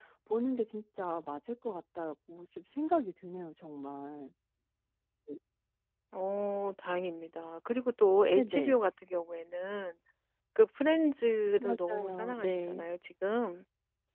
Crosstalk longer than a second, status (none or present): present